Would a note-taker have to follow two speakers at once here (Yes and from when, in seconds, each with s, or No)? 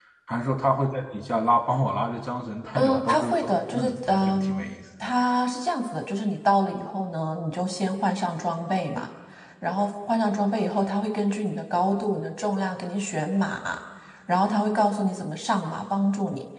Yes, from 2.8 s